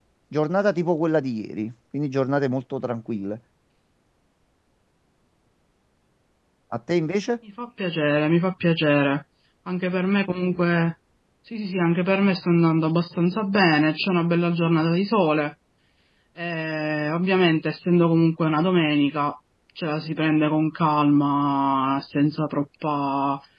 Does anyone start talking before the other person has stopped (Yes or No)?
No